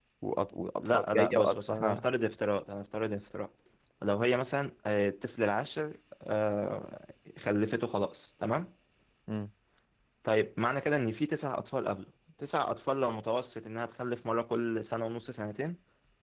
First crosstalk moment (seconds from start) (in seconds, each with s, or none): 0.8 s